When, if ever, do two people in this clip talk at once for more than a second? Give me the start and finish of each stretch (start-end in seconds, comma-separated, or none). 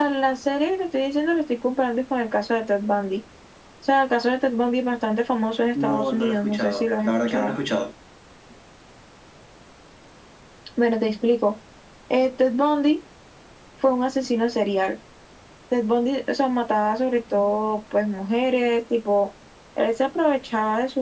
5.8-7.5